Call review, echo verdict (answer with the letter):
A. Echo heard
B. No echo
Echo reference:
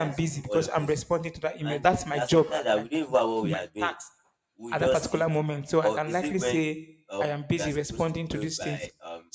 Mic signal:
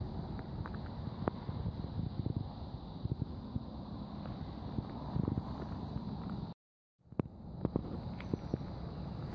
B